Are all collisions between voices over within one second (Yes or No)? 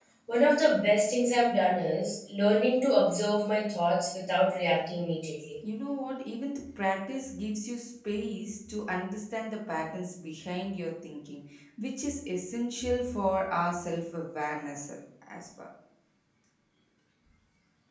Yes